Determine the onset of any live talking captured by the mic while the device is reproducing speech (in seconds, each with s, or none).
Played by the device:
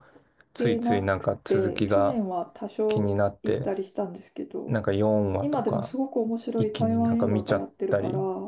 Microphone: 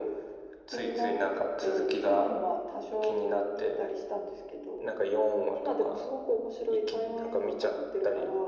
none